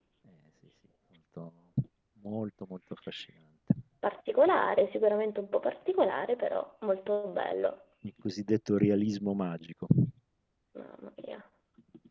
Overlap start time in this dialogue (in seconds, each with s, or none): none